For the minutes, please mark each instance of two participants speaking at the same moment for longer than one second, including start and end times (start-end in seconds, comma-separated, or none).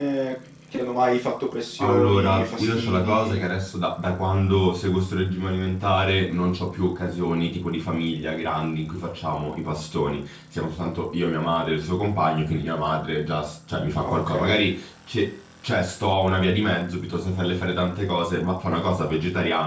1.8-3.4